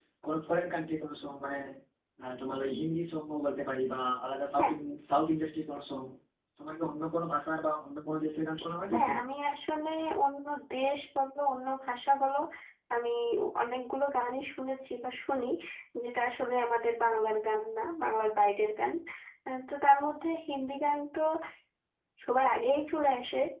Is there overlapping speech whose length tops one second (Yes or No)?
No